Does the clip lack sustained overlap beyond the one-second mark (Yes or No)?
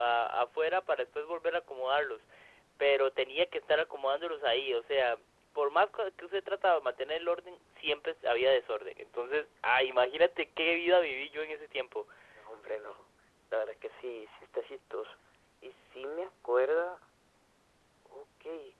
Yes